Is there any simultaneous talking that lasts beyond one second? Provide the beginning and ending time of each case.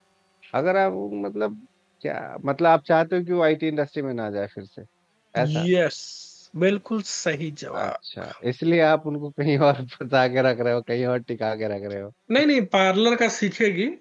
none

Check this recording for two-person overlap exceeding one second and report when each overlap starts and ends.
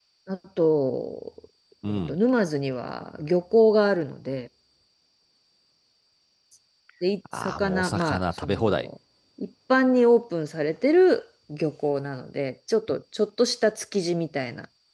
7.3-8.9

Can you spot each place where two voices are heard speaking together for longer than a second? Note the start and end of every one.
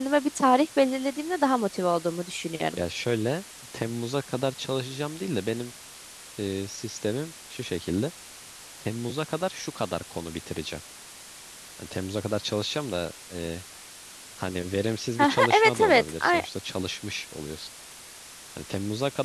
15.2-16.4

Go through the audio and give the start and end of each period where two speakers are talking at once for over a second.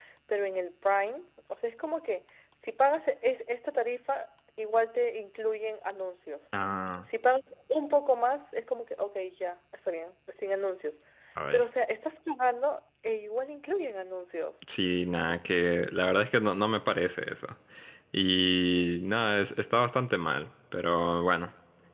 none

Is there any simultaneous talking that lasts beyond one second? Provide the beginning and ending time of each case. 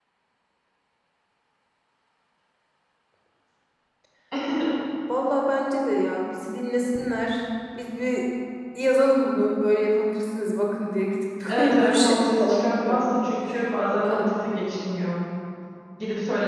11.5-13.0

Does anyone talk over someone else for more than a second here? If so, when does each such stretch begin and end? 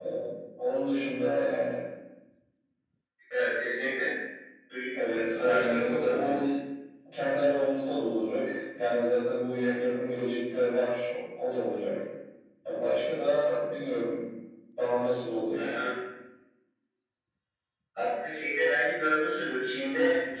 5.0-6.5

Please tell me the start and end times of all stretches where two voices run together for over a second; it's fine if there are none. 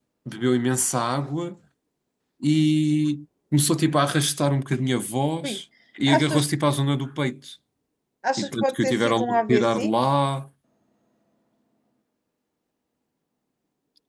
8.4-9.9

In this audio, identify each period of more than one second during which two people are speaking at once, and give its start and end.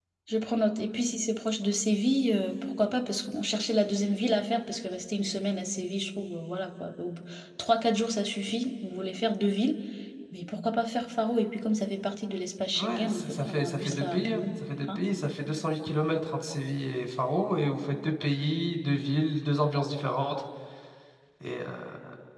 12.8-14.4

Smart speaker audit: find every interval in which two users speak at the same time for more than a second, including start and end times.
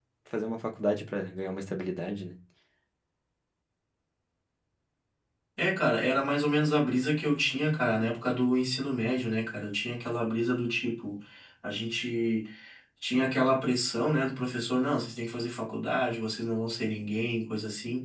none

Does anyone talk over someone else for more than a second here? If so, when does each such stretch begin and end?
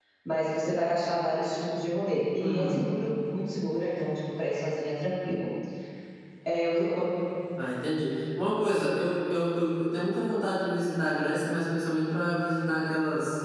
none

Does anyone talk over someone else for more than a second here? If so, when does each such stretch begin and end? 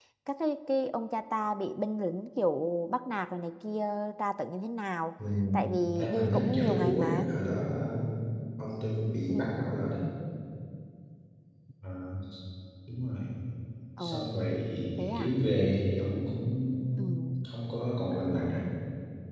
6.0-7.3

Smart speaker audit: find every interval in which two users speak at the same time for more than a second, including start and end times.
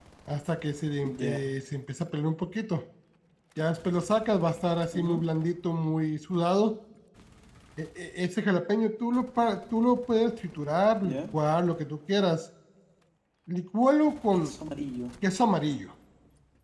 none

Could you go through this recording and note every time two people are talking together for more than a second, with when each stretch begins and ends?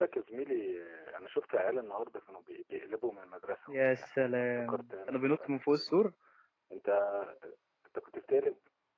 3.7-5.9

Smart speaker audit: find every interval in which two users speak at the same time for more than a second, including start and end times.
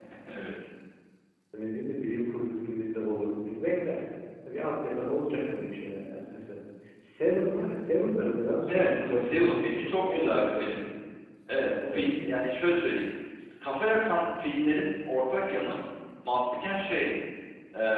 8.7-10.7

